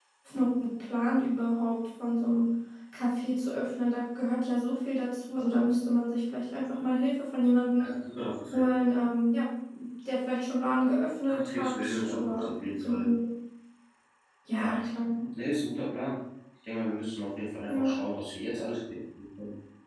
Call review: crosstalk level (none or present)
present